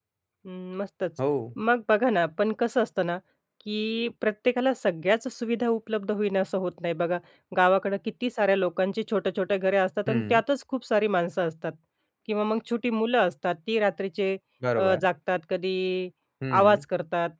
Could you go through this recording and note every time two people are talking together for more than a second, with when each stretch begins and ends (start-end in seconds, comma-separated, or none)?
none